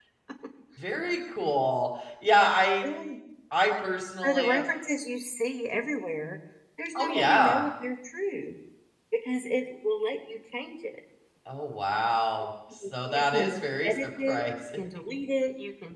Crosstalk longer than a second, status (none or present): present